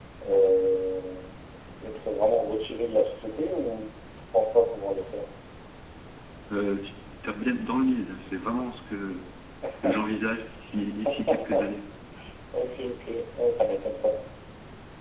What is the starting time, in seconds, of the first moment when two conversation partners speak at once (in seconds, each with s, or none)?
none